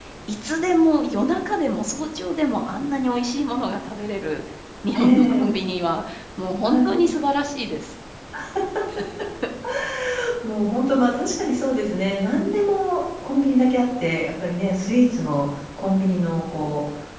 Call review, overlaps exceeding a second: none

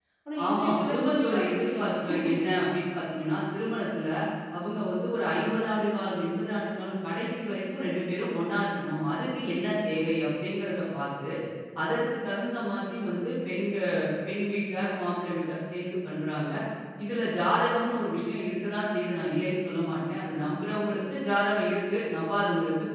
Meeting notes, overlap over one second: present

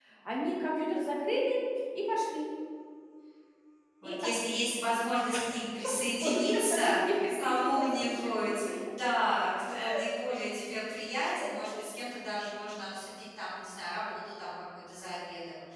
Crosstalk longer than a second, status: present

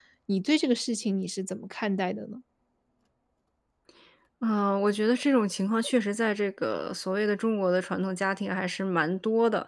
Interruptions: none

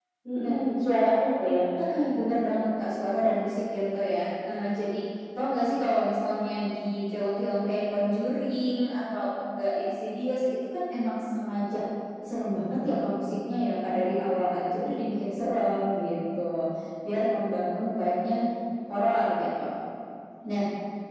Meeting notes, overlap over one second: none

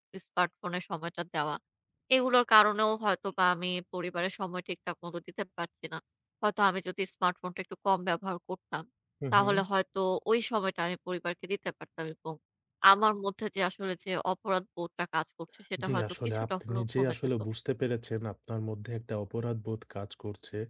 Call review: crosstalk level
present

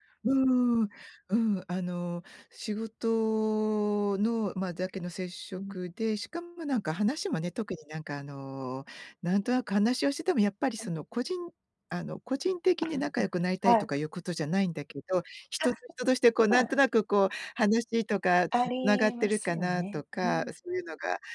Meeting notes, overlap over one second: present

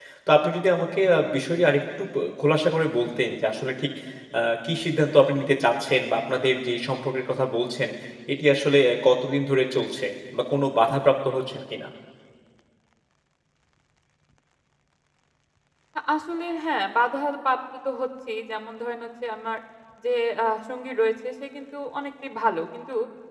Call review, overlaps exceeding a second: none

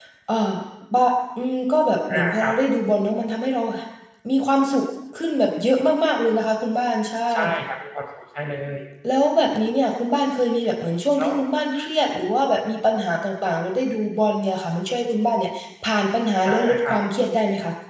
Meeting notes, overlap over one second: none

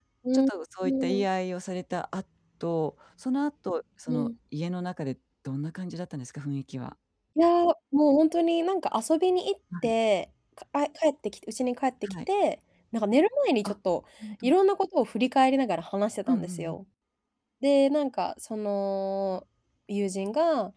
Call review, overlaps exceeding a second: none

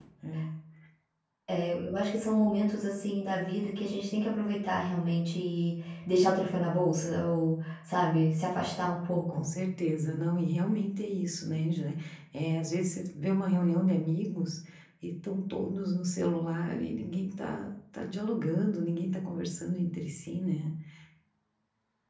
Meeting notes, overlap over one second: none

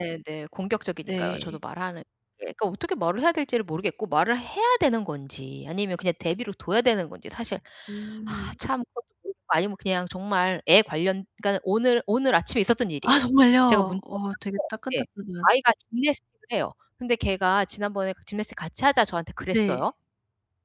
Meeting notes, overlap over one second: none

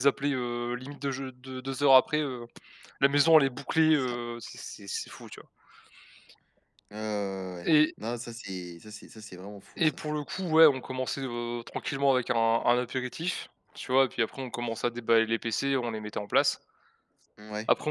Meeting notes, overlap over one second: none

